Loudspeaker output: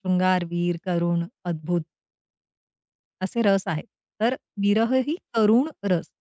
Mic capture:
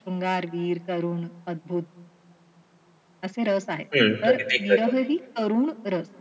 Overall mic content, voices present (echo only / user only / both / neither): both